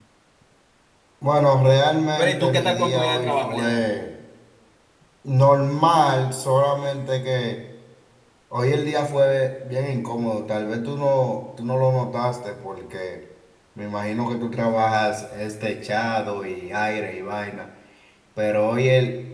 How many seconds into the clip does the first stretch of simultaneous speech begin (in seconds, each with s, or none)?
2.2 s